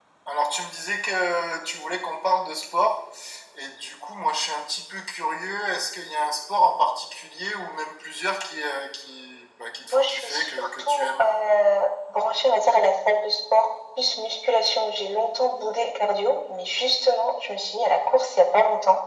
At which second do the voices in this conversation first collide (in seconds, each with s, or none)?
9.8 s